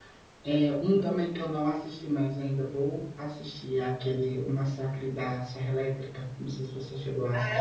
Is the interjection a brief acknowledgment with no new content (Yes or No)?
No